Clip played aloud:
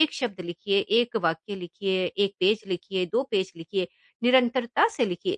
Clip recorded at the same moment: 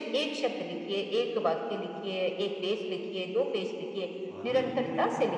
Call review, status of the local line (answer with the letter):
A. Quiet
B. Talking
B